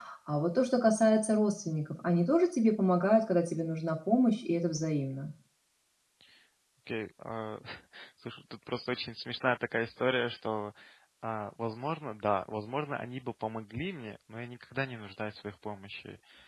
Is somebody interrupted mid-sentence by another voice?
No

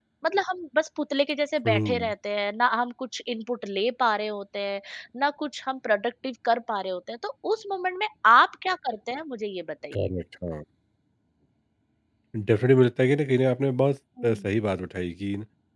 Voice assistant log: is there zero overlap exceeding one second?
Yes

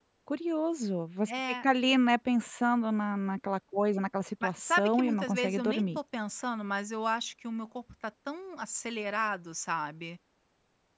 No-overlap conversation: No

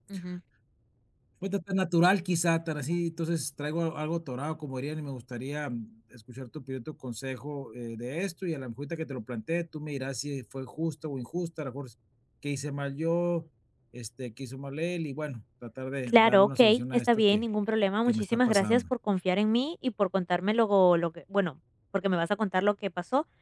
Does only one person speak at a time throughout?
No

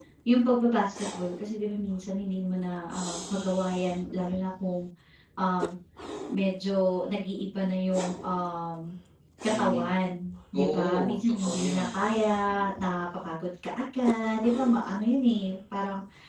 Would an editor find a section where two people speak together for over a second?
Yes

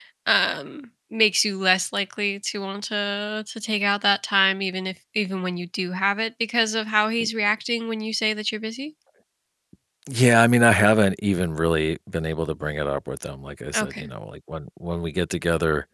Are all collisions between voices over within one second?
Yes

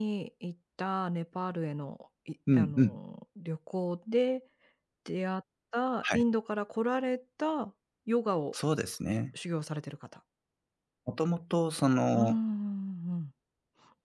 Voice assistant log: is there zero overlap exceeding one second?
Yes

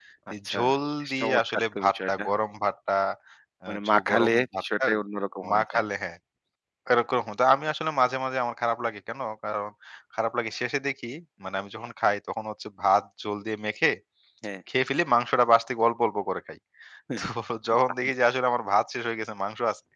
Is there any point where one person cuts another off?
Yes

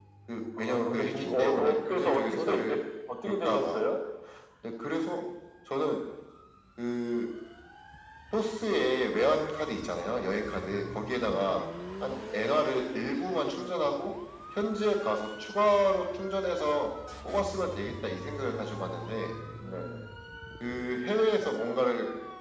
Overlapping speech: Yes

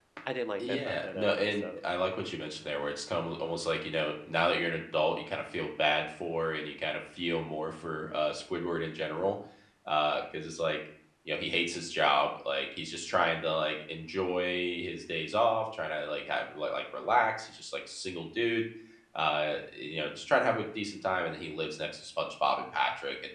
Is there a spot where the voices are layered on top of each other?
Yes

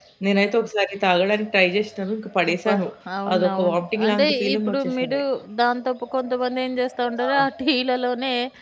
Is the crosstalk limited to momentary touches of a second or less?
No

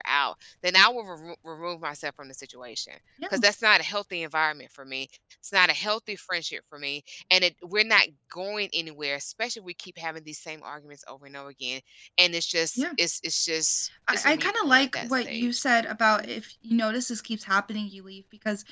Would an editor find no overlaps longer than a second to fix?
No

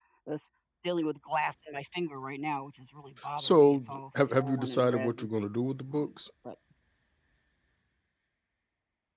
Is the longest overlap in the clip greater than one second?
Yes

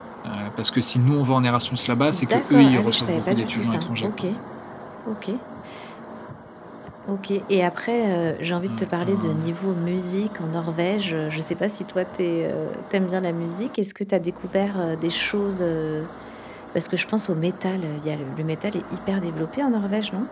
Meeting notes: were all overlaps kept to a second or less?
No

